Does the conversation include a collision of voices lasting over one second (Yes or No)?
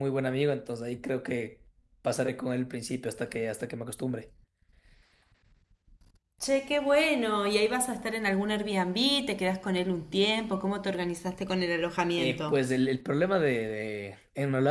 No